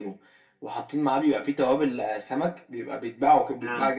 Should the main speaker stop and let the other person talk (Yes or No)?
No